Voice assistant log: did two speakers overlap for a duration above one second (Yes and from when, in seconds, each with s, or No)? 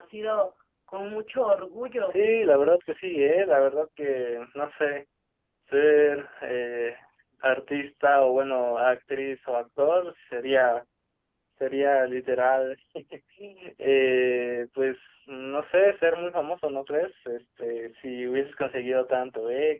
No